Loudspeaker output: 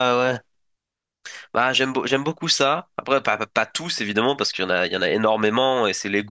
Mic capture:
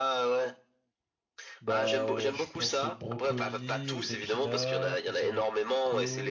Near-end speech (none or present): present